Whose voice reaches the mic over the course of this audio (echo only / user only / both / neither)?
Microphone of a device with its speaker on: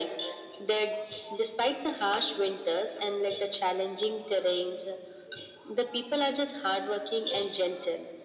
echo only